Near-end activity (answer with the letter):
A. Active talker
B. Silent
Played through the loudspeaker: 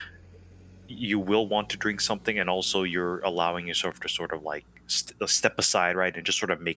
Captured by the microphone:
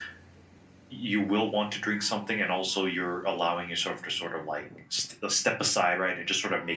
B